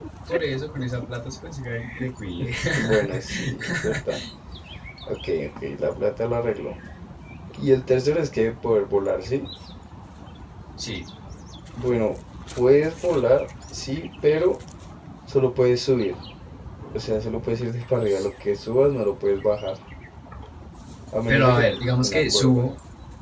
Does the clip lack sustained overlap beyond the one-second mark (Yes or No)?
No